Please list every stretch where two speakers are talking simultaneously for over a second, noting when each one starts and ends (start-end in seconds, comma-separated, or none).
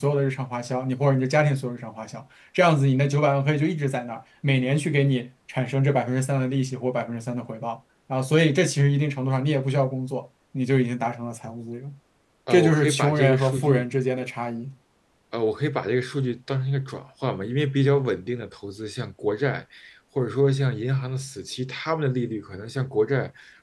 12.5-13.9